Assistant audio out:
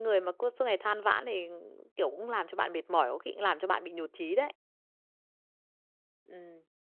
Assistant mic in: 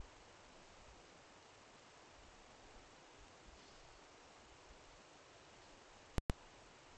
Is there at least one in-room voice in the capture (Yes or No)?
No